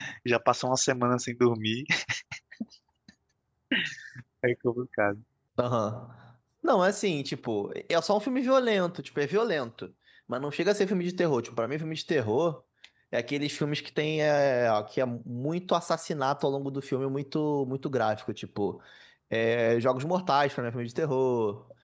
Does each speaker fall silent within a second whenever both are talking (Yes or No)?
Yes